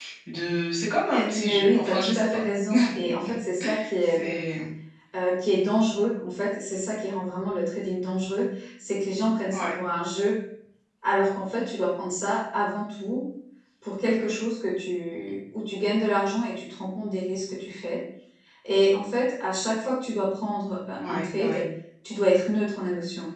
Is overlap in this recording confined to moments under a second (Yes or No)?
No